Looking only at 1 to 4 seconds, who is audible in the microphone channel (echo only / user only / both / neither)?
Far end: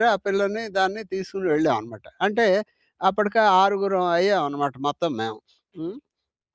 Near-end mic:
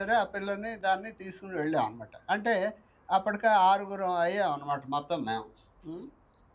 echo only